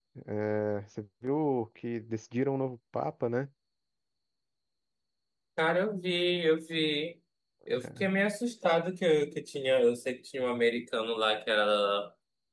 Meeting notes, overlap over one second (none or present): none